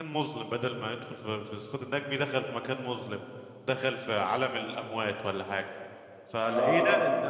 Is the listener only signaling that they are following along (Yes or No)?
Yes